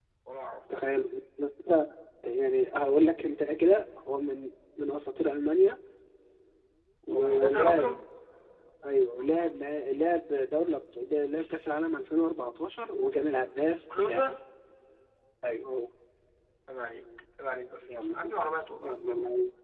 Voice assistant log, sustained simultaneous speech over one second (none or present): present